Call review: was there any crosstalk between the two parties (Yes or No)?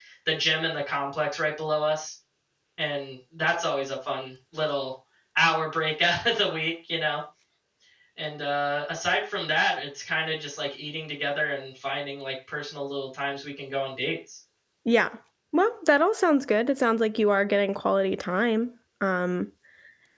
No